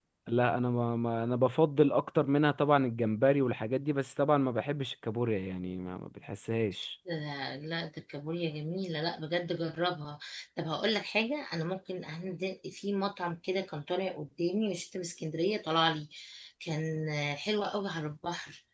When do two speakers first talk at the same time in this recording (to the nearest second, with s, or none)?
none